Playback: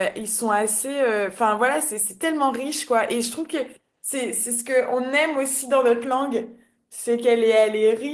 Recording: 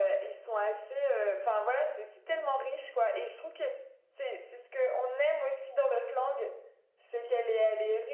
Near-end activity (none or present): none